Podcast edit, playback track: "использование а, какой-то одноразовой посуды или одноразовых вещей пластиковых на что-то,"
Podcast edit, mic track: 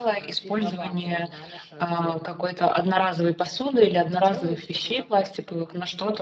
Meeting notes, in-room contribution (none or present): present